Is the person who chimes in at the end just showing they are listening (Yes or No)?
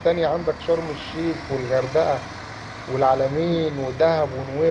Yes